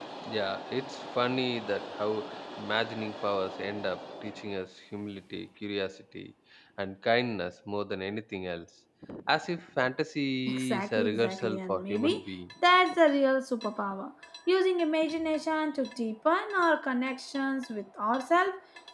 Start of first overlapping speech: 10.5 s

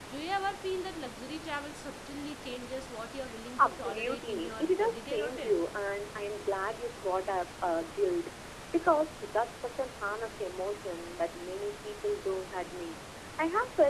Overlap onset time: 3.6 s

